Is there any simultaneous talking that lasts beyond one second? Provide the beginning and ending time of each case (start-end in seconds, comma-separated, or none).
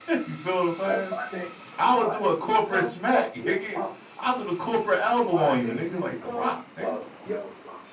1.9-3.8, 5.3-6.9